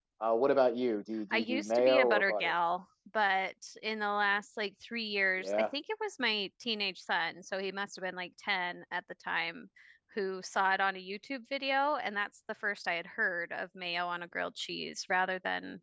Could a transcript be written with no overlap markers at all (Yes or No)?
No